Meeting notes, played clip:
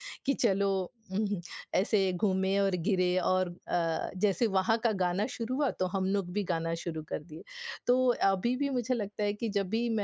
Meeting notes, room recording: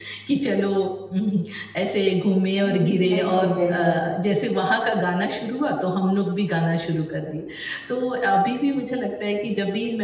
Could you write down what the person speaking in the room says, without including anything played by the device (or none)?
जी, जी, बिल्कुल, बिल्कुल,